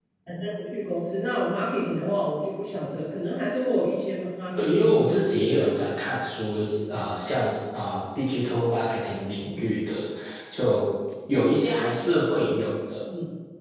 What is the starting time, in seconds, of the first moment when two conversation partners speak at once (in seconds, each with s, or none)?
4.5 s